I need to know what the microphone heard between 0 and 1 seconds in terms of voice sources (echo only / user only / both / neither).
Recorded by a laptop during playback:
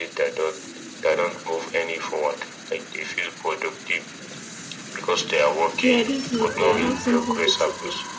echo only